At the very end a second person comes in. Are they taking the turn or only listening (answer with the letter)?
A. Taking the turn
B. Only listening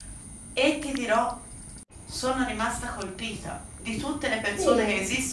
B